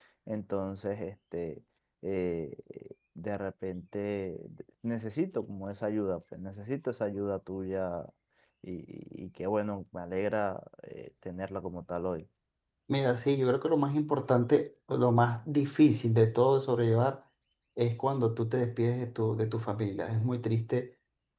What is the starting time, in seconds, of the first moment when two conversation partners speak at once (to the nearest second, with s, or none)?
none